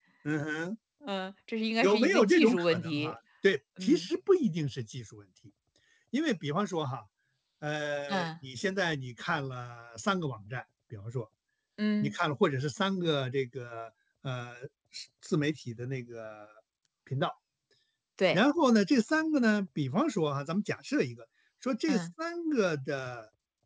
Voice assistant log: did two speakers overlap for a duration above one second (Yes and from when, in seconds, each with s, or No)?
Yes, from 1.8 s